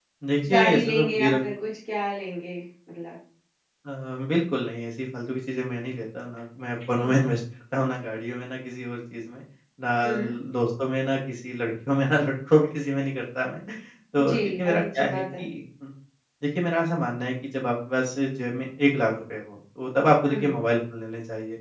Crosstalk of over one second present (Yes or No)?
Yes